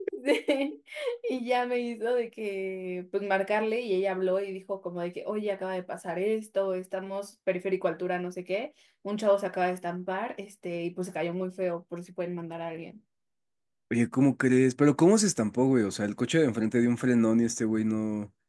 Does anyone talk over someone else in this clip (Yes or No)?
No